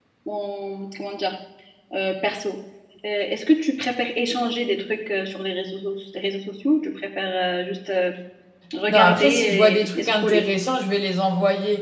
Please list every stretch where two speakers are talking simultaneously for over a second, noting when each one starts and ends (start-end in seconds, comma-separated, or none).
8.9-10.5